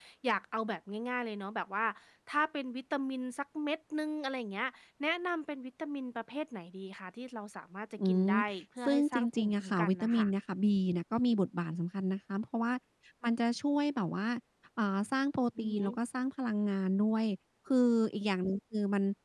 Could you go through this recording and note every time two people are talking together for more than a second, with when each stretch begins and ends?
8.8-10.3

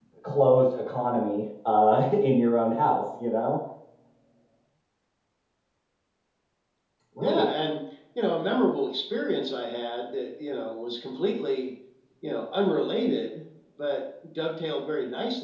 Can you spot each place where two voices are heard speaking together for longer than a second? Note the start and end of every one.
none

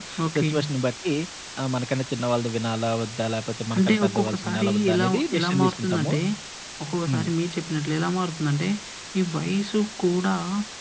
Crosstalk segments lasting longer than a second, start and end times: 3.8-6.1

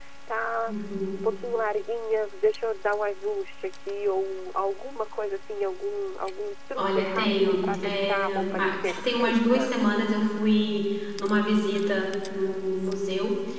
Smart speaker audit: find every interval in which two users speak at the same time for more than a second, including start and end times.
6.8-9.8

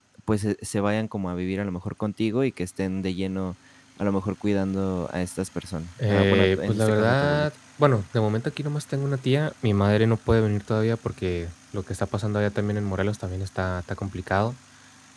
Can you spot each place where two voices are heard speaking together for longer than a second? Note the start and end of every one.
6.1-7.5

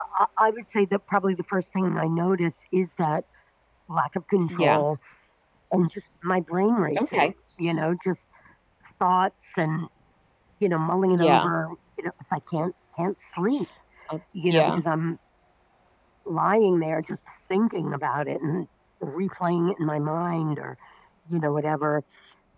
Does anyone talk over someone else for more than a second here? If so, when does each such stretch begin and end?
none

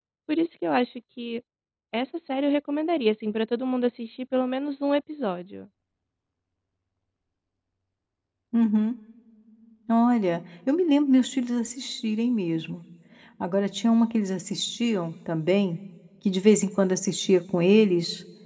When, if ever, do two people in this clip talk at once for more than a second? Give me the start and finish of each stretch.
none

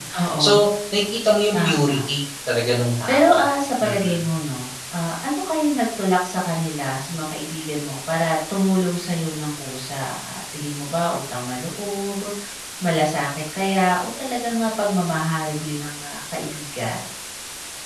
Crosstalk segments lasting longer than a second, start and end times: none

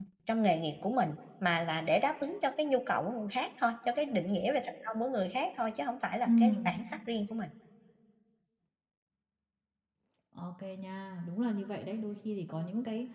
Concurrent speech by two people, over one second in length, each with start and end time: none

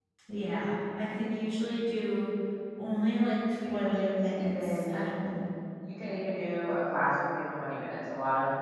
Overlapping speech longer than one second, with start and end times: 3.6-5.0

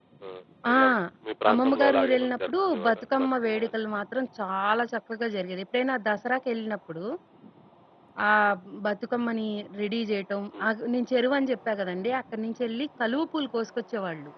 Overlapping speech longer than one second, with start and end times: 1.5-3.8

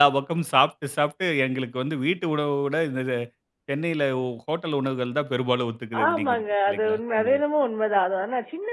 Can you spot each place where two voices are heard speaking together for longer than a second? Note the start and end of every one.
6.1-7.4

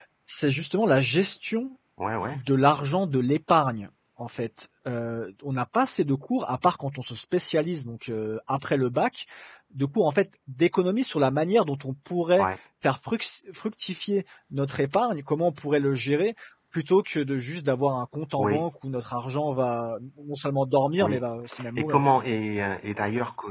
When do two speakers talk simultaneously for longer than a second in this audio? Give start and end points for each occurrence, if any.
none

